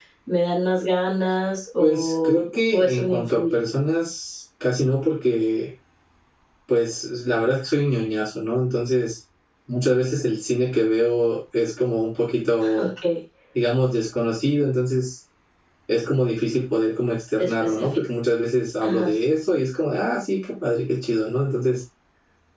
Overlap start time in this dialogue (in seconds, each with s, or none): 1.8 s